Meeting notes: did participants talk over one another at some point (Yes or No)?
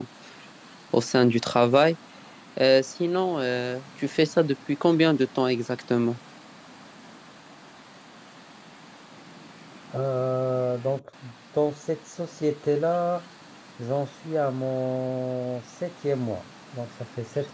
No